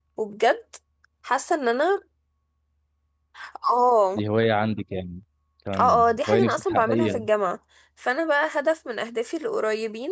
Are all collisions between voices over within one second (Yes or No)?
No